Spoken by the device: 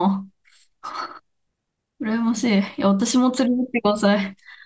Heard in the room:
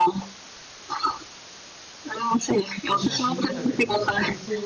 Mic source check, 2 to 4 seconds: both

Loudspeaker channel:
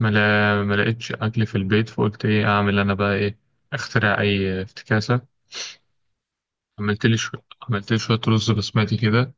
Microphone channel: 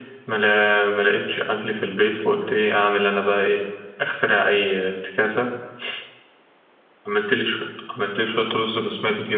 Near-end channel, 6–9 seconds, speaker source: echo only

